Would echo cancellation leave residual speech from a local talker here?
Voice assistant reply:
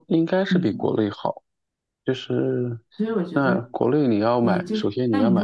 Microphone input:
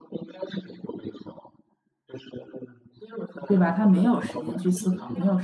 Yes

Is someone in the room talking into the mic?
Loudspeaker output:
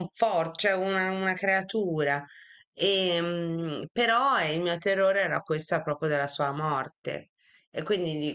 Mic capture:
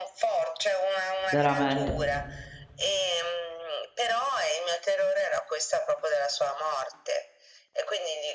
Yes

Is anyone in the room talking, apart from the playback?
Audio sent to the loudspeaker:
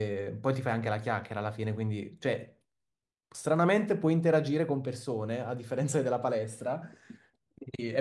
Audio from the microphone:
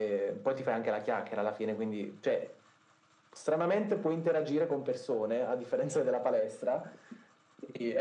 No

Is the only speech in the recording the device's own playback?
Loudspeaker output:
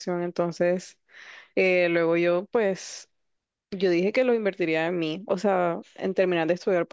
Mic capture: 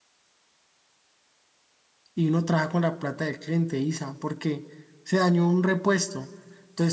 No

